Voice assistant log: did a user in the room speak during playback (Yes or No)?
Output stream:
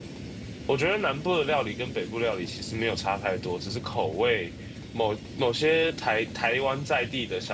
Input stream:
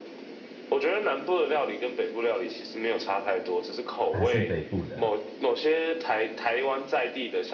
Yes